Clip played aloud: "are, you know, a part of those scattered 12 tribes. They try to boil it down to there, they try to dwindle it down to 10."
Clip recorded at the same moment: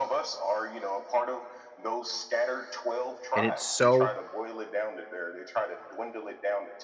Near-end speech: present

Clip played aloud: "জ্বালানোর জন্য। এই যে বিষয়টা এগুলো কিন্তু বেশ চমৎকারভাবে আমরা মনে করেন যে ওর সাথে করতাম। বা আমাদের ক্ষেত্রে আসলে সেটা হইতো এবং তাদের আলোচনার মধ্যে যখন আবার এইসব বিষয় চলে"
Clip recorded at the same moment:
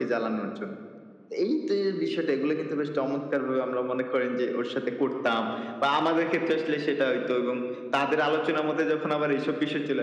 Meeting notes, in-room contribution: none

